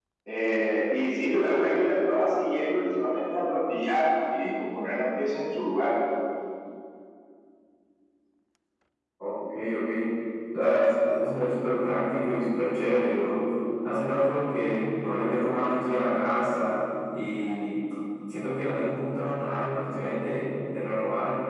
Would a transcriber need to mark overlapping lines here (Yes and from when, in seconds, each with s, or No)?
No